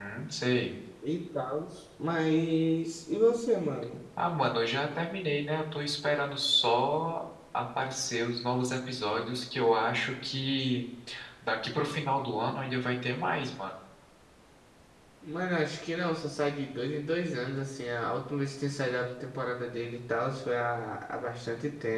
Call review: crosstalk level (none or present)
none